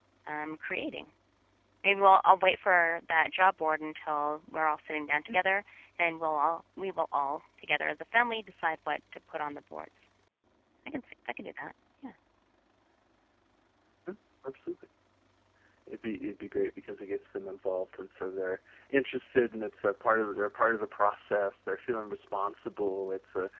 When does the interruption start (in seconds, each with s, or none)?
none